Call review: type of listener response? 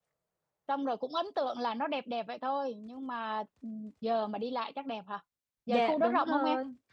taking over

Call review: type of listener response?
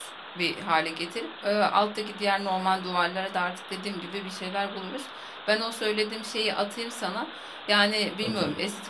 listening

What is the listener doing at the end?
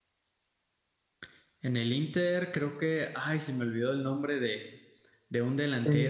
listening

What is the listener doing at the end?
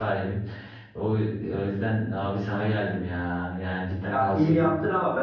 taking over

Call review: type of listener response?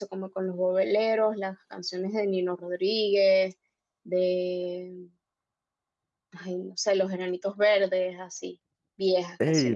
taking over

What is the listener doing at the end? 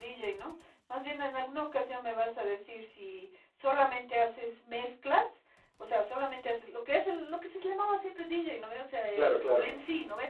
listening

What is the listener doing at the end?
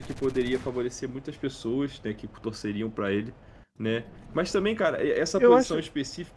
listening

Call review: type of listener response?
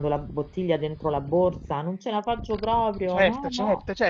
taking over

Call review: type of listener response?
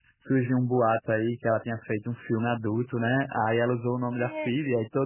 listening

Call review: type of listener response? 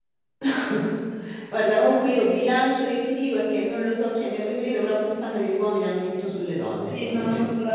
taking over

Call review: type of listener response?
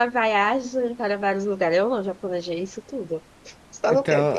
taking over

